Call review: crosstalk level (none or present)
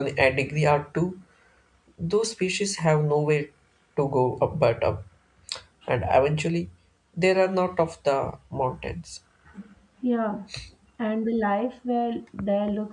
none